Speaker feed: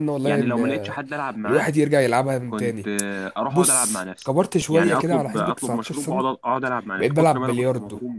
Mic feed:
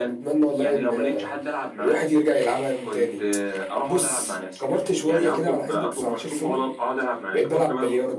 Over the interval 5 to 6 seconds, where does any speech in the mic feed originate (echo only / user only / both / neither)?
echo only